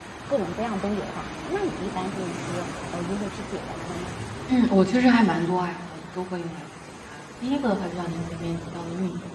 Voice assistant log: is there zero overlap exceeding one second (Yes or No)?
Yes